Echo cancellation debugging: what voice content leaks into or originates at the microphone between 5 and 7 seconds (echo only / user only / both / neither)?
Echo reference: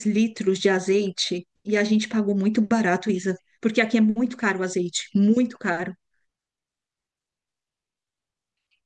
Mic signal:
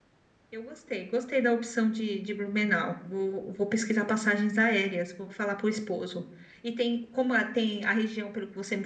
user only